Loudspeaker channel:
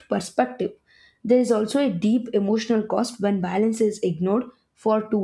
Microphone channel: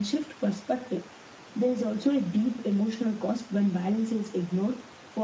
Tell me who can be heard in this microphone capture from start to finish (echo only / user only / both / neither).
echo only